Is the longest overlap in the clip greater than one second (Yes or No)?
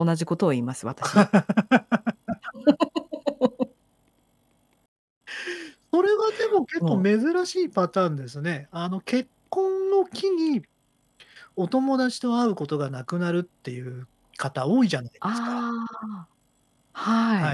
No